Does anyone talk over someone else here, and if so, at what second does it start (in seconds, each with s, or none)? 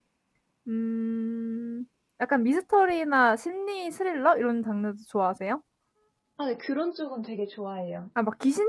none